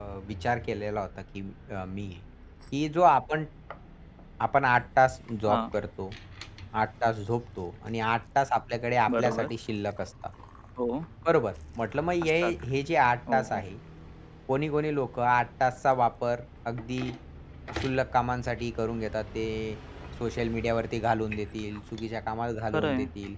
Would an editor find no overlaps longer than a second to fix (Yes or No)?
Yes